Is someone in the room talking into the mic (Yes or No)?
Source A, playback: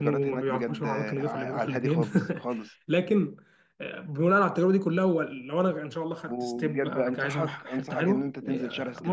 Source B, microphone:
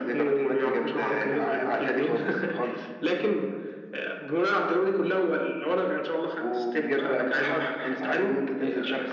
No